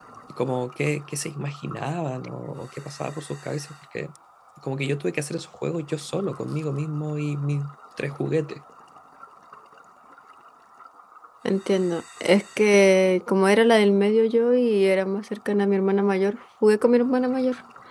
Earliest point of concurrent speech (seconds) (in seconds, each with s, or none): none